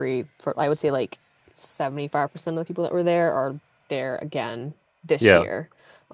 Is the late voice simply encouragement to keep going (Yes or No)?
Yes